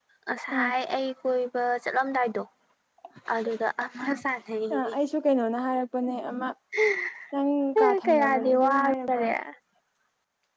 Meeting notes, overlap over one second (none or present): present